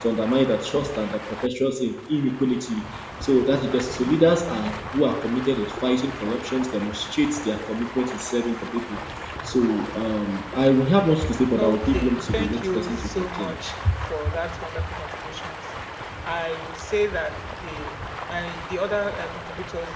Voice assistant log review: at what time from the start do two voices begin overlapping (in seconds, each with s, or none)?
11.6 s